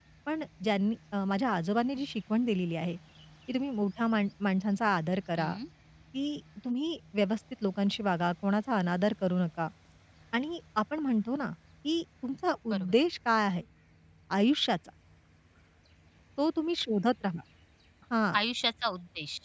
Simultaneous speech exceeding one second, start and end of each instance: none

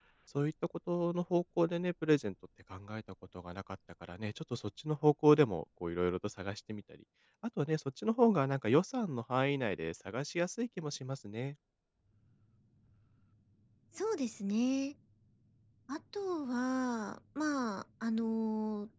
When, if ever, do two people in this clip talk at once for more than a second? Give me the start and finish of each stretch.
none

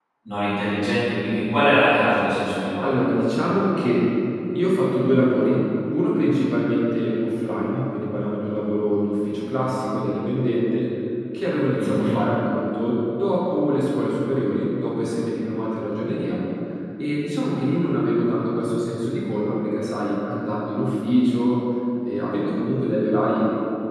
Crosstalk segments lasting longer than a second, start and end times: none

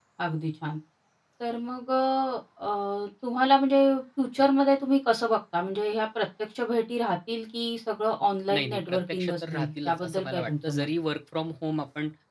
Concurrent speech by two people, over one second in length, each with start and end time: 8.5-10.9

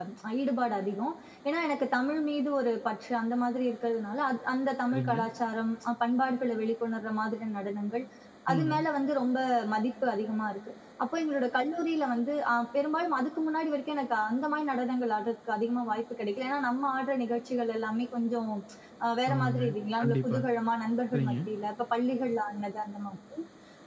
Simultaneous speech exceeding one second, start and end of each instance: none

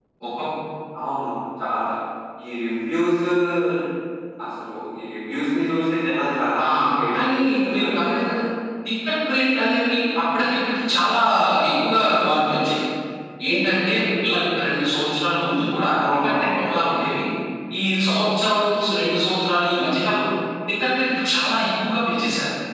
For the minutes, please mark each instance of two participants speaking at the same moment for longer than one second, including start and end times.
7.1-8.4

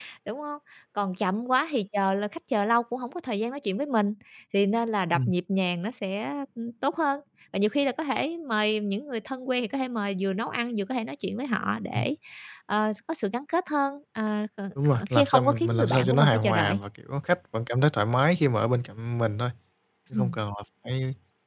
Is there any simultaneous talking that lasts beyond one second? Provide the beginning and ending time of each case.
15.1-16.8

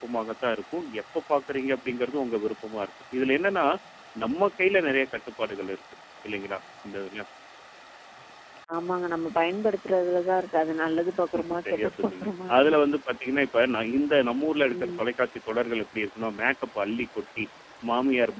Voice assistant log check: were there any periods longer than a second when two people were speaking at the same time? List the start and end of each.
11.4-12.7

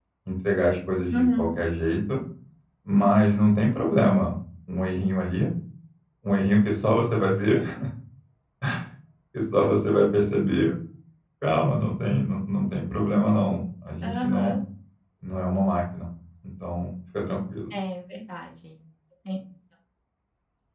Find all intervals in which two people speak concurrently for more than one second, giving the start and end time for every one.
none

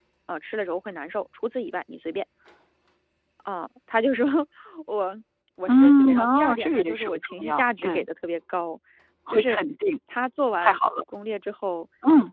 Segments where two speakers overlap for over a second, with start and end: 5.7-8.0

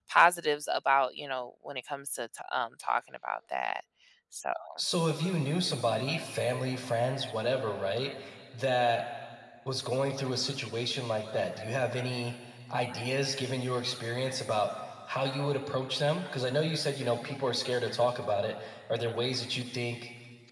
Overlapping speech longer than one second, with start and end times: none

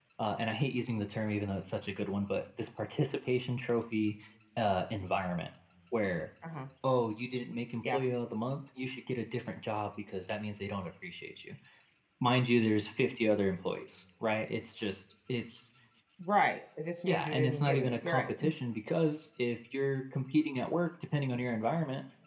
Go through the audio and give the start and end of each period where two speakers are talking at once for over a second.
17.1-18.3

